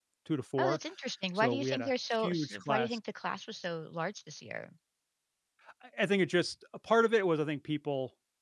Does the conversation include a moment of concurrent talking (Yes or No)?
Yes